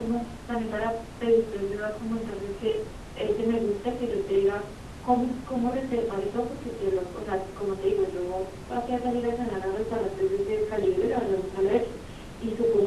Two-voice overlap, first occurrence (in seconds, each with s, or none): none